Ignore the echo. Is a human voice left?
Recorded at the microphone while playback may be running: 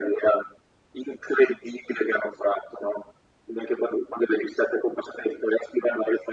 No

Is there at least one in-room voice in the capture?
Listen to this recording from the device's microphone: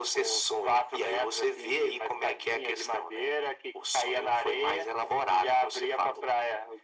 No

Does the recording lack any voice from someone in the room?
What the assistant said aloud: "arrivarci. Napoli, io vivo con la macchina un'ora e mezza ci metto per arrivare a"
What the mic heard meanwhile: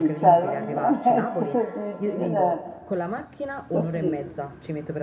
No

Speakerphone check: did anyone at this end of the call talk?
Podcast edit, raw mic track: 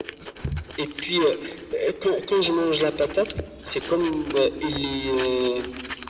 No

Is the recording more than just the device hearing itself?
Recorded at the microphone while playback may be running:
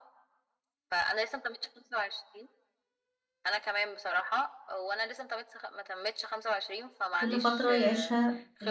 Yes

